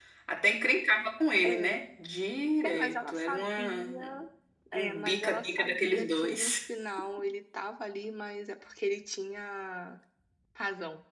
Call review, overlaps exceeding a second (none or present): present